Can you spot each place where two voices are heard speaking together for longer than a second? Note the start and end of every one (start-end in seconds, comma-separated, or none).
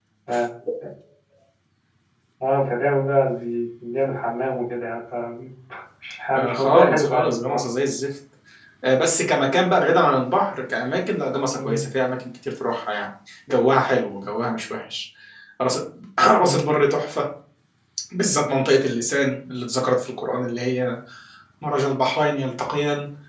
6.3-7.6